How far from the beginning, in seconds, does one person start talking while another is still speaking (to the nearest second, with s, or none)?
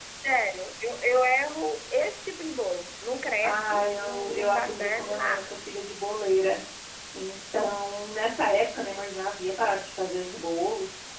3 s